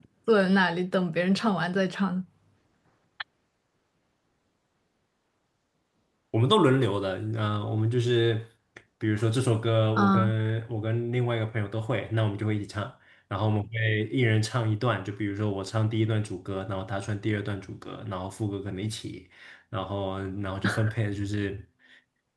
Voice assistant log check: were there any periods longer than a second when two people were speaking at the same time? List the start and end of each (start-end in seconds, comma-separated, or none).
none